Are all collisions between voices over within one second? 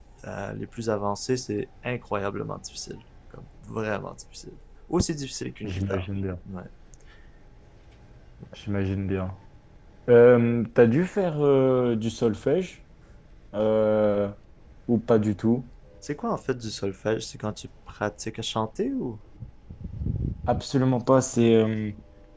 Yes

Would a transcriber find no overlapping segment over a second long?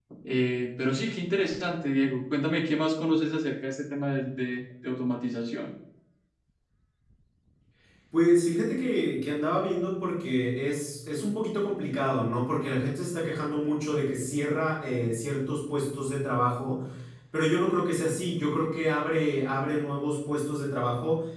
Yes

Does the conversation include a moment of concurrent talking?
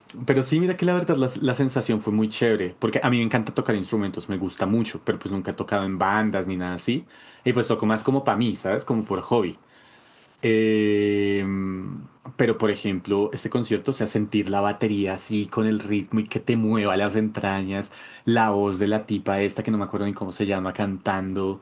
No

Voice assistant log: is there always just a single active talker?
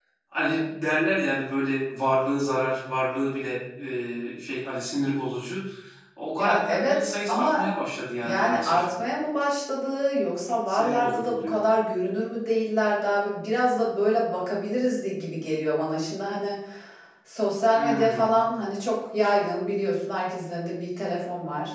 No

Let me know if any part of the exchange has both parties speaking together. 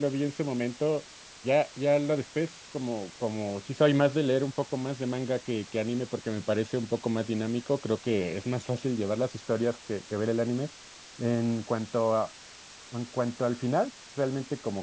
No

